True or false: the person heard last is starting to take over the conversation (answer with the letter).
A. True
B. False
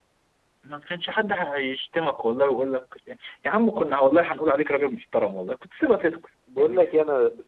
A